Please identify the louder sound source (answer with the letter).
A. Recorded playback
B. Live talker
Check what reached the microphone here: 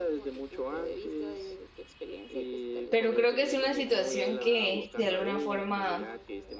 B